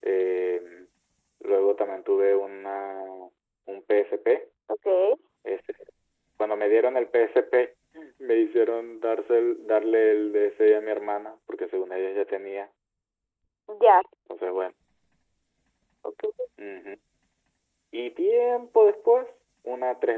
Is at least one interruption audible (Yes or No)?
No